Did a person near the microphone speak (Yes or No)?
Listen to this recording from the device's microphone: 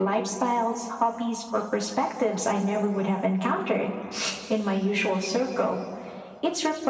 No